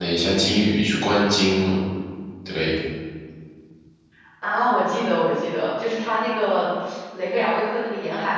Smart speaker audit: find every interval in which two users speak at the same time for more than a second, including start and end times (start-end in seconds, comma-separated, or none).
none